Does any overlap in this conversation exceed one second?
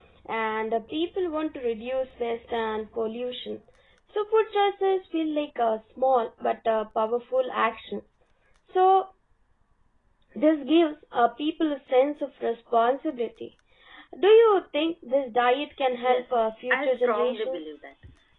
Yes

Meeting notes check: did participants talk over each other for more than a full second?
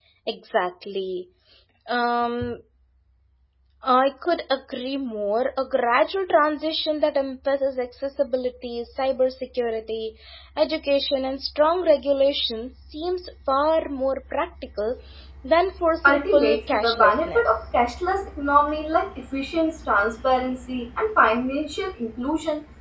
Yes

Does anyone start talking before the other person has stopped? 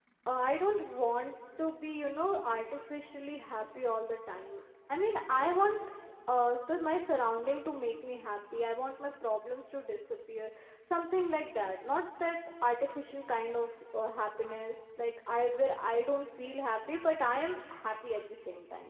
No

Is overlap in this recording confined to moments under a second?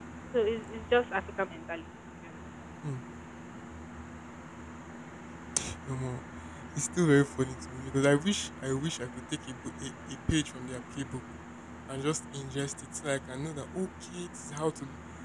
Yes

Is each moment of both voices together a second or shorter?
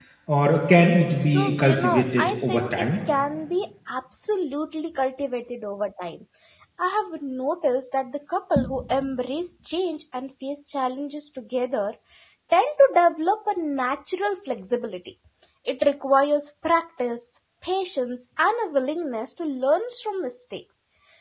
No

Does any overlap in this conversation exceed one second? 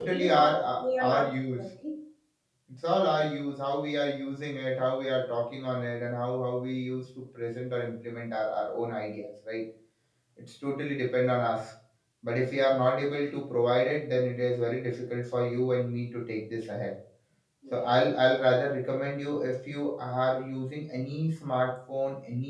Yes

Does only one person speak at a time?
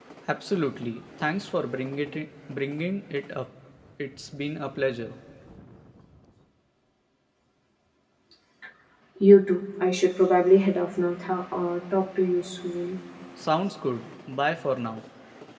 Yes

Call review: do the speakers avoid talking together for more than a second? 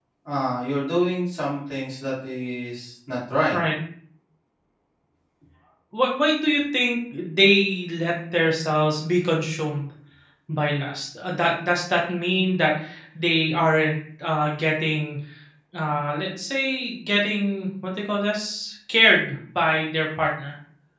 Yes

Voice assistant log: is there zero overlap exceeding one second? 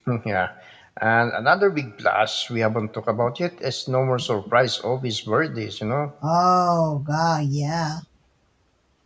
Yes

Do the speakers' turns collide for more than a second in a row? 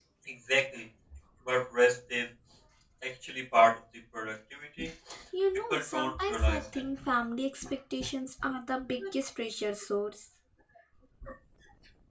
Yes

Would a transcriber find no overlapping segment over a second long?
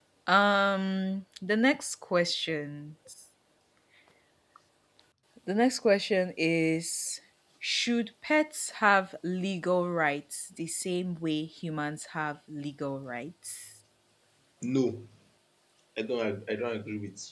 Yes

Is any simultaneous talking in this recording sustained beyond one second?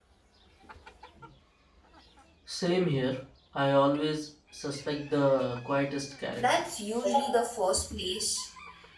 No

